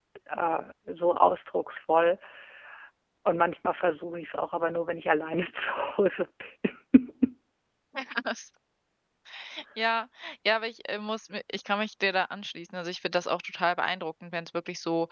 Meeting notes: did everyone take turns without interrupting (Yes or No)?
Yes